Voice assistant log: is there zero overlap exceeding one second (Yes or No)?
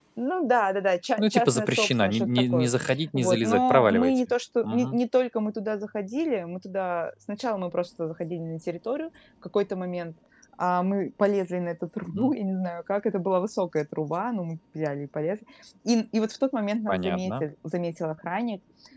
No